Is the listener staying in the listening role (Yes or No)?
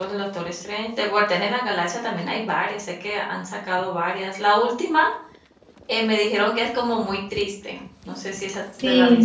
No